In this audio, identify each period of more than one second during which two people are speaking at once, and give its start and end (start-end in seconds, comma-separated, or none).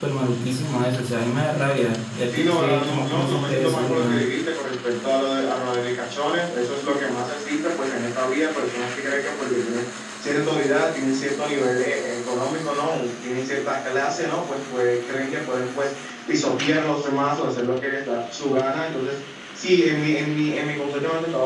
2.4-4.2